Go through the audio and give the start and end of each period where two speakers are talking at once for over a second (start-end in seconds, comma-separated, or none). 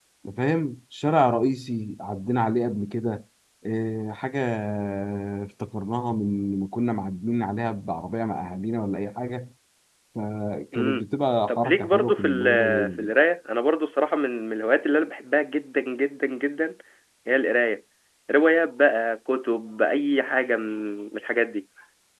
11.5-13.1